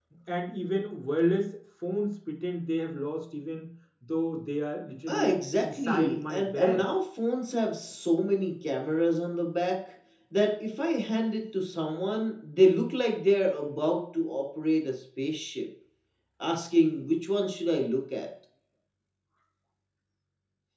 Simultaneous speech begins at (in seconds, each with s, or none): 5.1 s